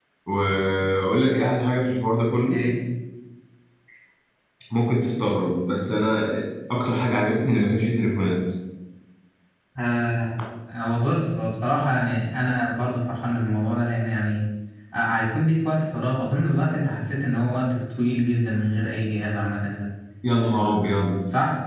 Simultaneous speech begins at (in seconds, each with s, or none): none